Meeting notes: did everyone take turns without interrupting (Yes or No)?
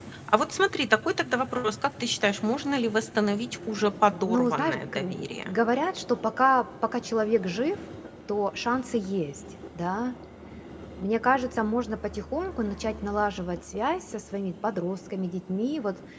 No